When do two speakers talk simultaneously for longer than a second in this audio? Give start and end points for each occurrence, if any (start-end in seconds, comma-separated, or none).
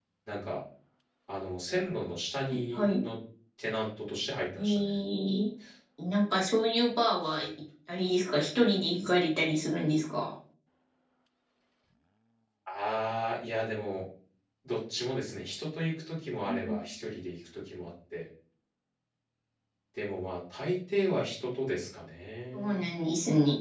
none